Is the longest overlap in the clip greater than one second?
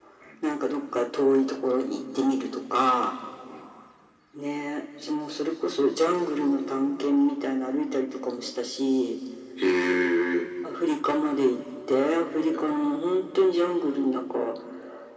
No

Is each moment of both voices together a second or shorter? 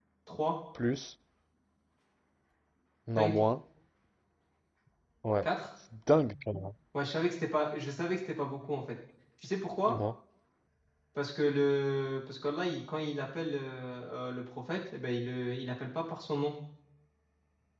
Yes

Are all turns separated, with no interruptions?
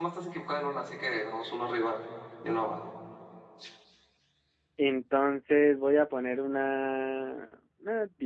Yes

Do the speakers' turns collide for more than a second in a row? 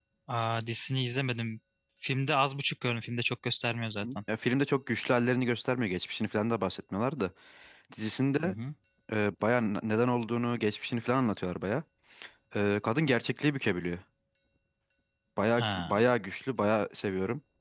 No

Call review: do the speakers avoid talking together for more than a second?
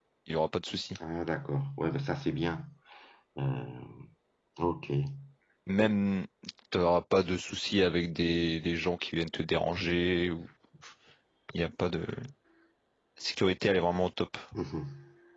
Yes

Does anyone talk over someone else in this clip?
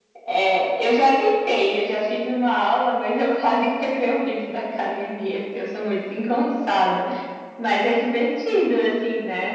No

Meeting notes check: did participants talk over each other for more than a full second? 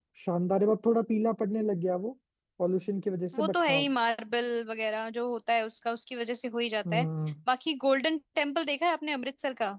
No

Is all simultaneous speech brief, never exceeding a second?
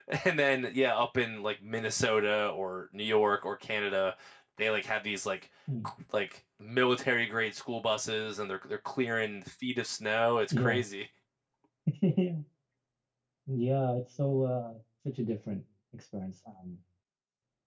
Yes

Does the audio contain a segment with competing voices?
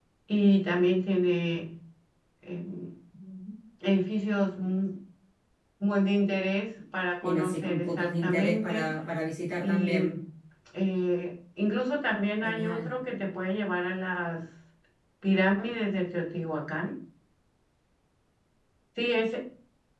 Yes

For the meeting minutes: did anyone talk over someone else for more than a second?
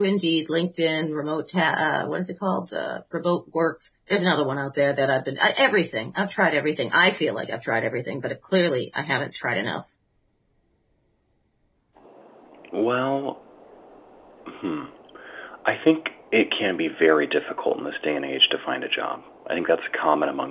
No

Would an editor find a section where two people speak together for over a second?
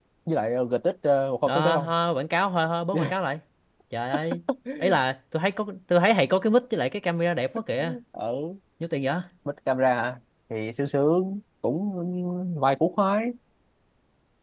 No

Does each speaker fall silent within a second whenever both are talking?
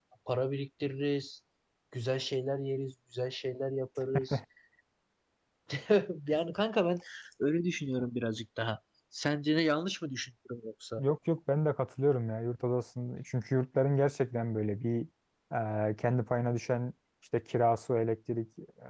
Yes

